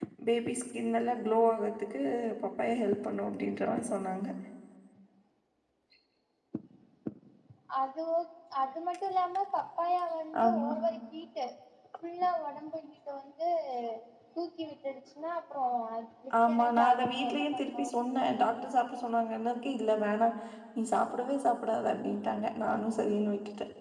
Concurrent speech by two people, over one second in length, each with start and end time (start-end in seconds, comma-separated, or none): 16.5-17.8